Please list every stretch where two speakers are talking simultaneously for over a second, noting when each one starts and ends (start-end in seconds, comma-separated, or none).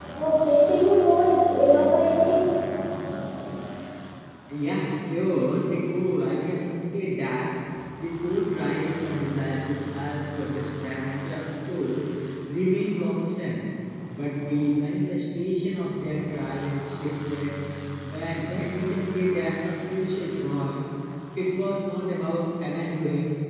none